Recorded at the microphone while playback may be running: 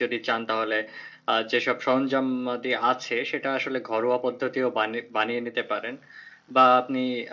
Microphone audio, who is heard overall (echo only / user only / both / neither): echo only